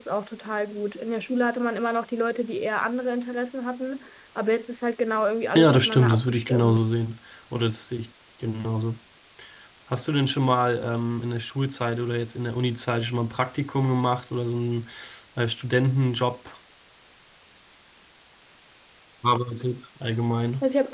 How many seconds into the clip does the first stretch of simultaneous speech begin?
5.5 s

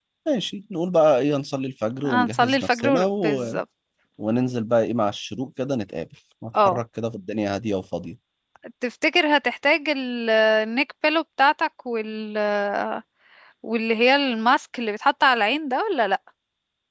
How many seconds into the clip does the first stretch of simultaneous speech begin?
2.0 s

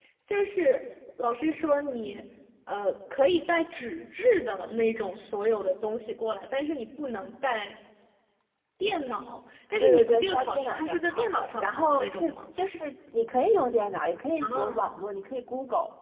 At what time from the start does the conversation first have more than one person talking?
9.8 s

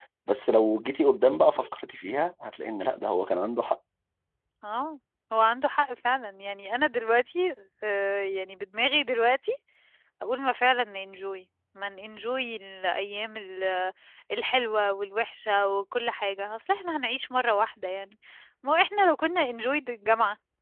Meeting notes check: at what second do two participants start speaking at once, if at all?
none

